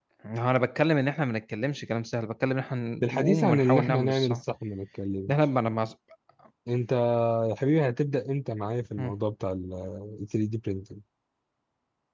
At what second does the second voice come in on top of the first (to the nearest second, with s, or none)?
3 s